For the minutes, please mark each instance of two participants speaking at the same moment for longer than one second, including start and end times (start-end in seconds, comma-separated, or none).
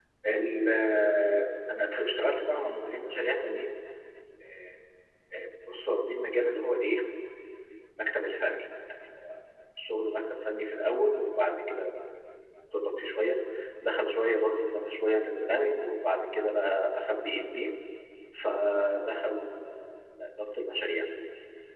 none